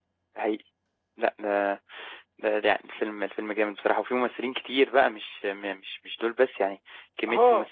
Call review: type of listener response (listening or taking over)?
taking over